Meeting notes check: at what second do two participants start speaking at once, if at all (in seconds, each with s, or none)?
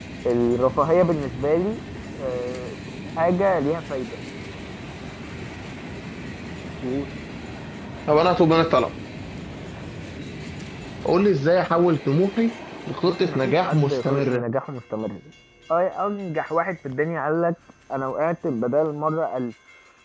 13.1 s